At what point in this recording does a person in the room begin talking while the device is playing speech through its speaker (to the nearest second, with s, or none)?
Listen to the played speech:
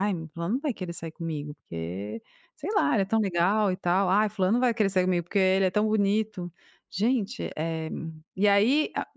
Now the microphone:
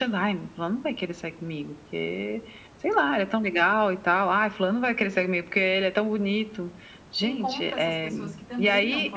7 s